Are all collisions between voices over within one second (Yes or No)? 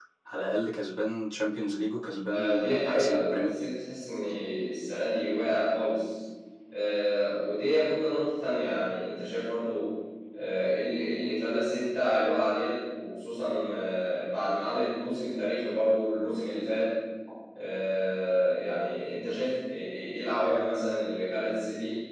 No